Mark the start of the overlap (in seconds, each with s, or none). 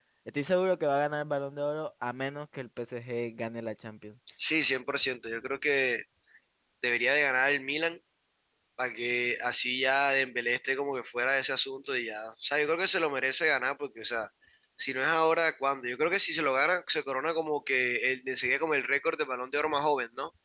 none